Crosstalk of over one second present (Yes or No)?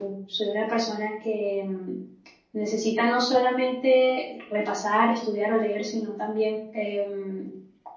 No